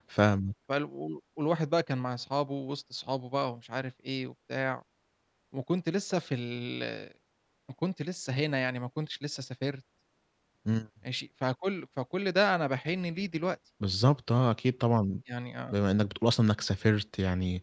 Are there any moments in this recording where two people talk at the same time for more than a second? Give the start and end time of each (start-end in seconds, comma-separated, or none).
none